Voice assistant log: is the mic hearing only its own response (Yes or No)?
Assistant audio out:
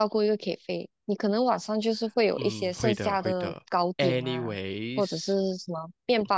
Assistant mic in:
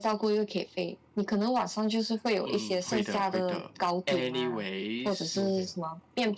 No